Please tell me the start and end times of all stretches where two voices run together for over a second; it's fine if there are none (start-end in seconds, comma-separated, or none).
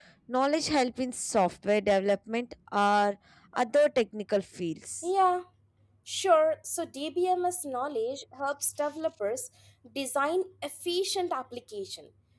none